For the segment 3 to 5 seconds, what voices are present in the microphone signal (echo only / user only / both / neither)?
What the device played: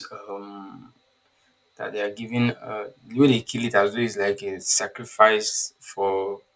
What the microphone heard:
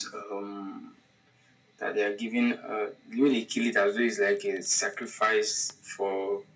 echo only